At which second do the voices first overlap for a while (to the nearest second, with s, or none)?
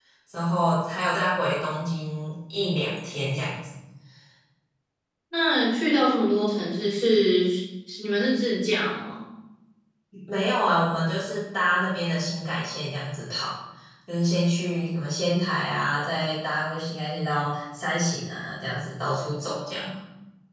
none